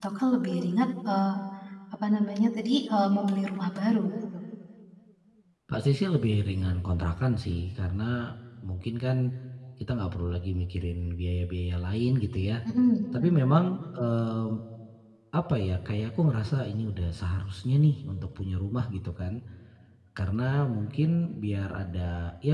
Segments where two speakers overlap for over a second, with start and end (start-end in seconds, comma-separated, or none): none